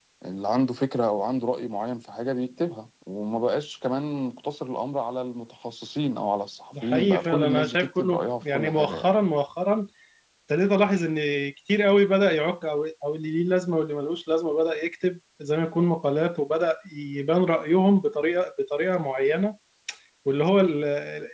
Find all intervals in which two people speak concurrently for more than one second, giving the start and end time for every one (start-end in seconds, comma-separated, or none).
6.8-9.1